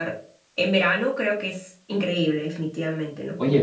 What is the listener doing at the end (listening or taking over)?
taking over